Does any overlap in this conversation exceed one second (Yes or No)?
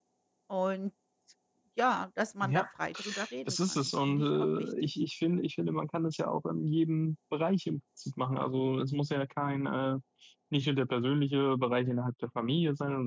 Yes